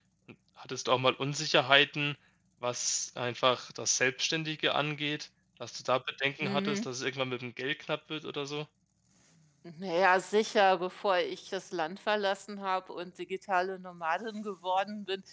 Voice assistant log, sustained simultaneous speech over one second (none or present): none